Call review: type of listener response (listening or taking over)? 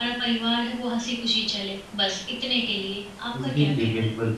taking over